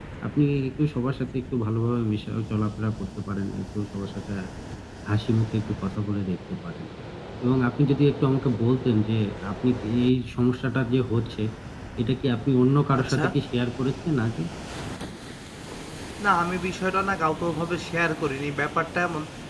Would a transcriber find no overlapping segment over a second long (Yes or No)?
Yes